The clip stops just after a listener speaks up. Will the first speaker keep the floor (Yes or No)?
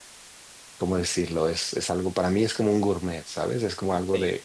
No